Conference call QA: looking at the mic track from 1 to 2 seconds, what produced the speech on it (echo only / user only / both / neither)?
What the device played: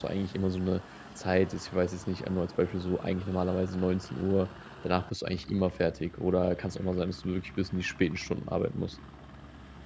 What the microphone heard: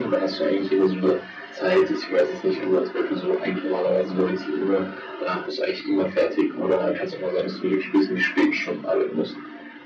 echo only